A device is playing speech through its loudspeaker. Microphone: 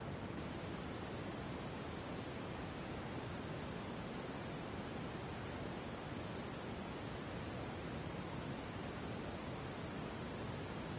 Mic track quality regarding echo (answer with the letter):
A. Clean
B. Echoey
A